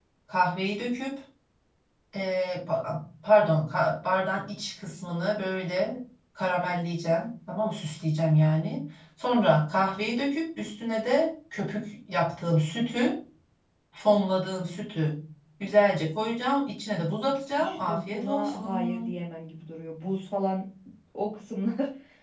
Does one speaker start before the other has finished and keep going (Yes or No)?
Yes